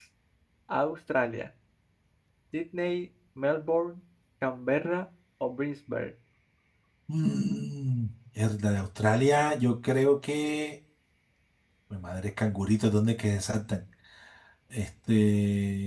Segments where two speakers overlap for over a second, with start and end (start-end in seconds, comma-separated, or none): none